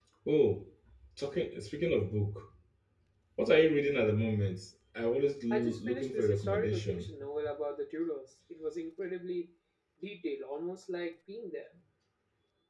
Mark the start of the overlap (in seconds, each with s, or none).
5.5 s